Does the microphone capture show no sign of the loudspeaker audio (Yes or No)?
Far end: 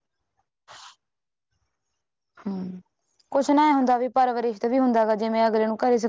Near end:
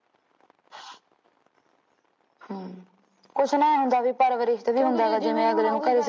No